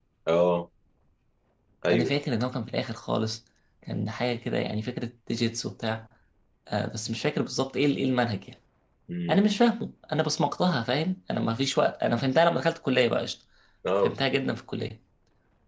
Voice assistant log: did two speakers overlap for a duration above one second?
No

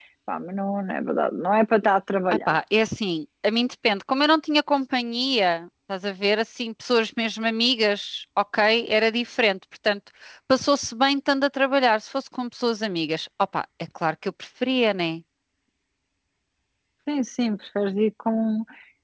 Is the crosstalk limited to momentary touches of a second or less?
Yes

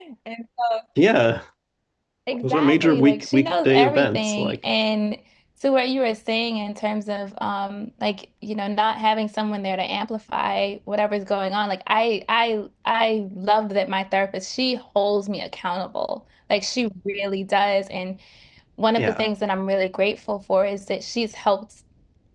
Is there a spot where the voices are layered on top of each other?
Yes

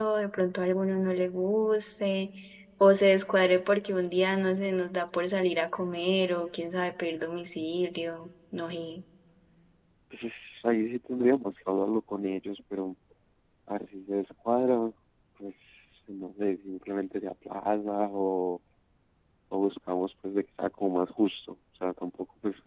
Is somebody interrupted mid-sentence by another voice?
No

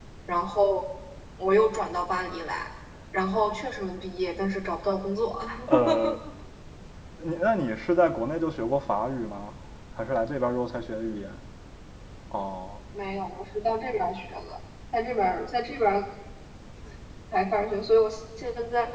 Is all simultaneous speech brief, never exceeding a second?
Yes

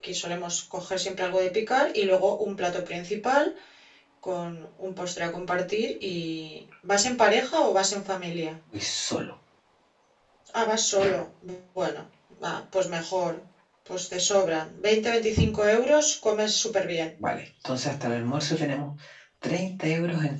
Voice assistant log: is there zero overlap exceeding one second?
Yes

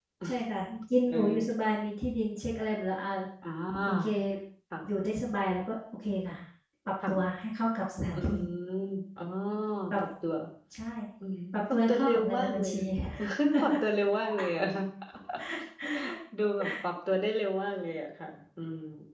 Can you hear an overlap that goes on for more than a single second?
Yes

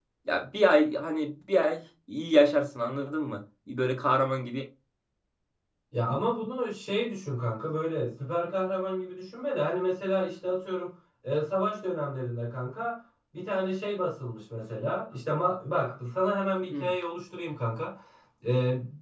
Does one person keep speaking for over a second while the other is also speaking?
No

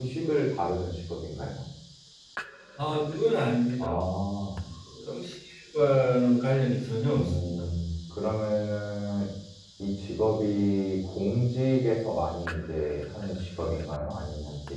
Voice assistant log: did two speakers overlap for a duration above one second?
No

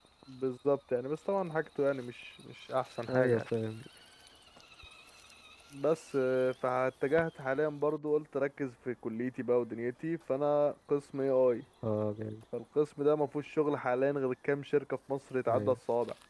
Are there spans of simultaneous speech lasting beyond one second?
No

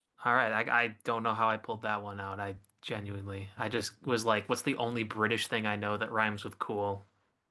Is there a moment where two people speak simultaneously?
No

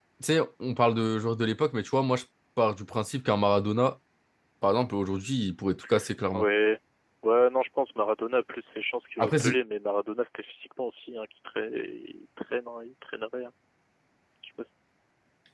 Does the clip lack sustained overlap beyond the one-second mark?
Yes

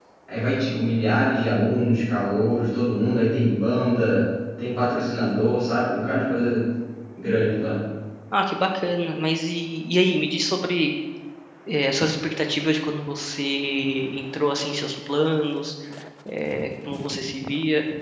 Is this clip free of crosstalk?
Yes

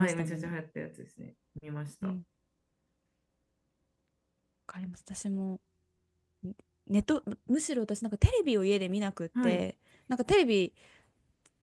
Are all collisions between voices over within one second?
Yes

